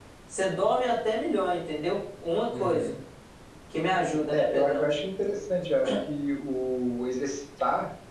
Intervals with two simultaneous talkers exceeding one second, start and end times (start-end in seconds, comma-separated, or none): none